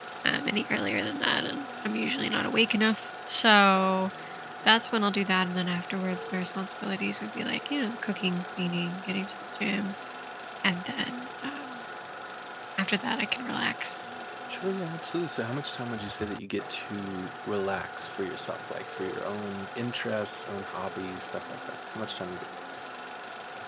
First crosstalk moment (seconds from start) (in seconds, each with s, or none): none